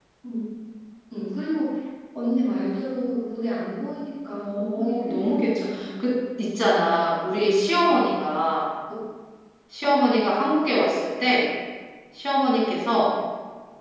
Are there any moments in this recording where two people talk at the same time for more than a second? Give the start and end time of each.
4.4-5.8

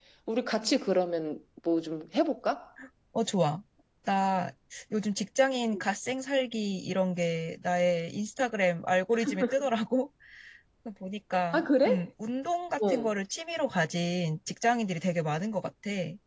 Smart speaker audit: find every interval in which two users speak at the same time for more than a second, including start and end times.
none

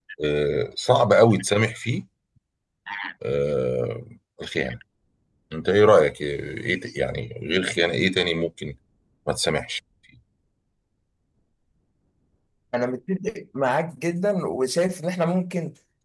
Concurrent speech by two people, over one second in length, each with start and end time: none

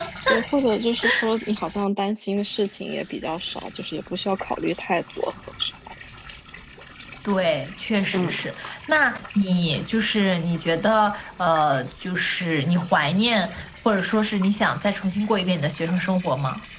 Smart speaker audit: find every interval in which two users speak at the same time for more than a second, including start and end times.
none

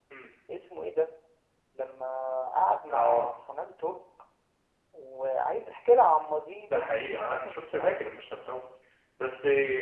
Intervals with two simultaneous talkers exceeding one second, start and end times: 6.7-8.0

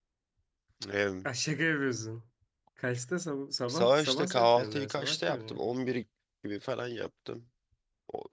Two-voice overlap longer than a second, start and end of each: 3.7-5.6

